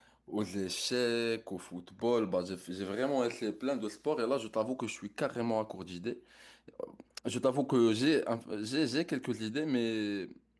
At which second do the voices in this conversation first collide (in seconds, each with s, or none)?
none